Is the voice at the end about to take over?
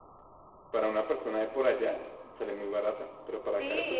Yes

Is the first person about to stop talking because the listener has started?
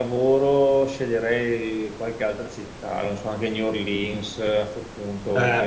No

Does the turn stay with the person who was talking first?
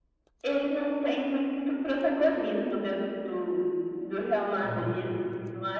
Yes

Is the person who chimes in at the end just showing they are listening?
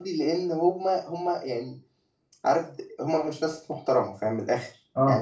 Yes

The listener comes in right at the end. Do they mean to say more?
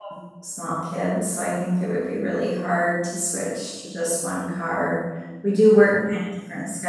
No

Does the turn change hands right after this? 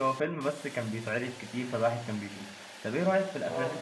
No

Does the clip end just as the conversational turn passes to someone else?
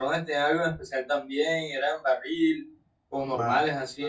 Yes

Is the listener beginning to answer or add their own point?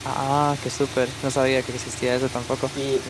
Yes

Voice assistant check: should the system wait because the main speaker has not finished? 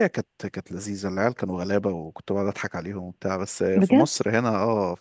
Yes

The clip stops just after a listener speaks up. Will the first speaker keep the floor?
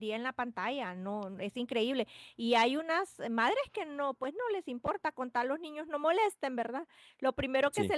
Yes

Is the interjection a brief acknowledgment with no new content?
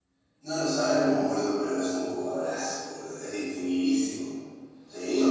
Yes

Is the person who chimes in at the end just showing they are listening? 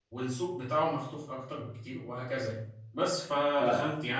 Yes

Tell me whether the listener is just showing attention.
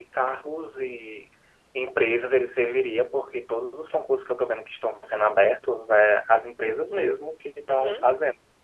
Yes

